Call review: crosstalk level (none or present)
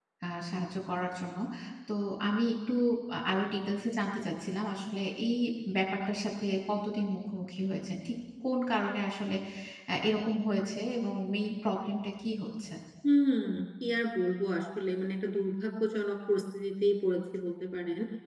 none